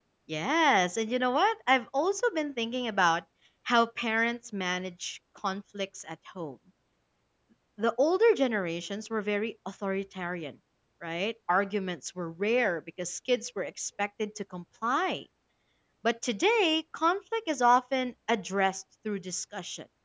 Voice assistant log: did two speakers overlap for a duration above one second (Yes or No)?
No